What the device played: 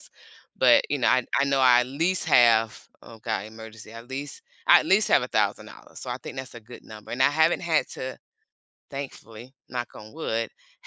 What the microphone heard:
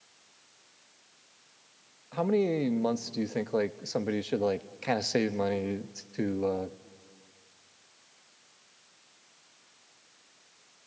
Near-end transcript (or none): how many months do you think like somebody should like kind of save money to, uh,